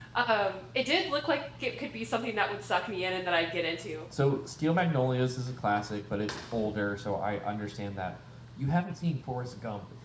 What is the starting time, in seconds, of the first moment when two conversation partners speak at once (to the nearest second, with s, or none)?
none